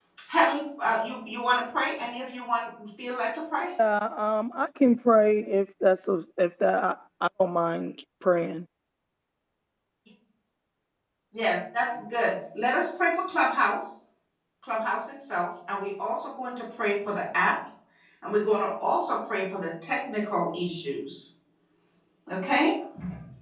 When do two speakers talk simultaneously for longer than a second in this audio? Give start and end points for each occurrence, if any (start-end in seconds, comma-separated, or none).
none